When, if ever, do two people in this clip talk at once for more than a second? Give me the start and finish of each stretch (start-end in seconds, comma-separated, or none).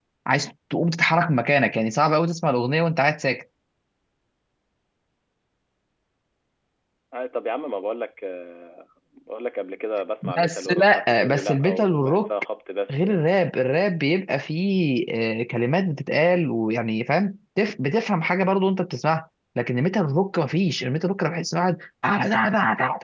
10.2-12.3